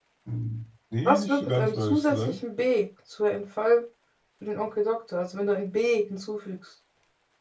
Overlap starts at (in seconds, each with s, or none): 1.1 s